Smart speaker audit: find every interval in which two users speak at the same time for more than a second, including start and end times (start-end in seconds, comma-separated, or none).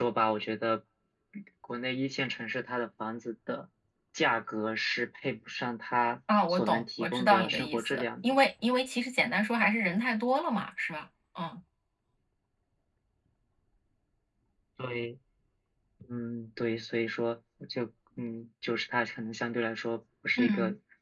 6.5-8.4